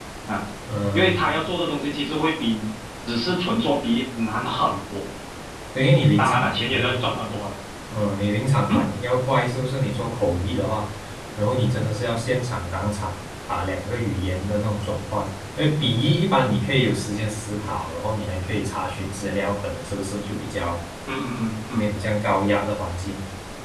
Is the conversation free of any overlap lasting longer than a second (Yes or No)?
No